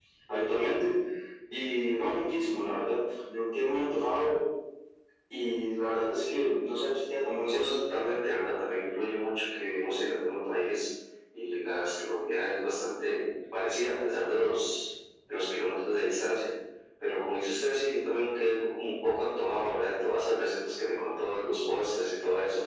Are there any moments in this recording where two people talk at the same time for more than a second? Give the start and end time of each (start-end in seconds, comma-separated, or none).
none